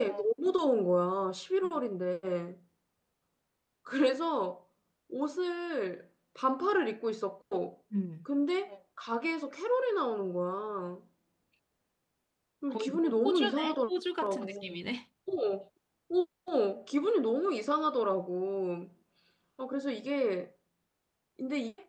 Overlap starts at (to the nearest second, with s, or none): 13 s